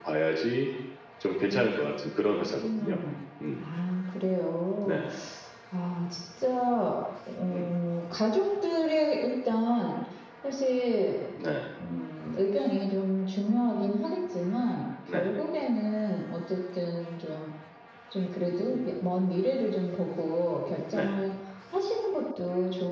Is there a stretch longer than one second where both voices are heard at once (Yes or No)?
No